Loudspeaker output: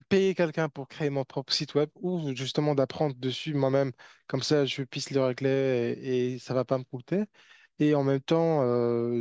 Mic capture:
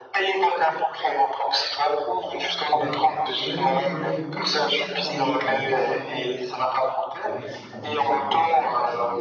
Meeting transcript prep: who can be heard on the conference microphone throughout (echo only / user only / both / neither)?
both